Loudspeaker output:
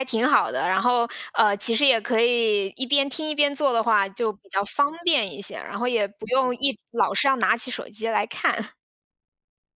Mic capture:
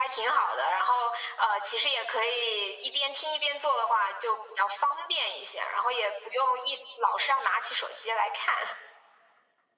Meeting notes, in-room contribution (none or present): none